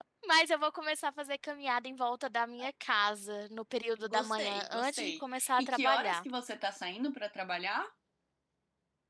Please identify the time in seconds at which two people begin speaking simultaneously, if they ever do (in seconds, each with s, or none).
4.0 s